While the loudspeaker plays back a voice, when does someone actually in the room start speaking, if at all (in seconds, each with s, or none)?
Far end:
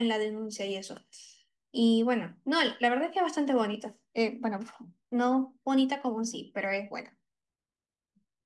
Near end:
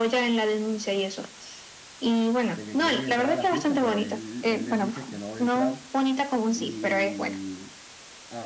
2.5 s